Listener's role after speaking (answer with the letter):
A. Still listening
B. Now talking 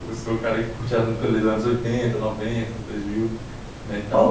B